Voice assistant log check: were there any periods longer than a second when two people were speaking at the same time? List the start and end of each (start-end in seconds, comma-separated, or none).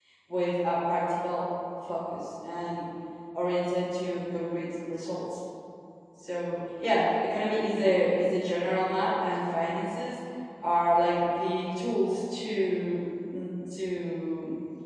none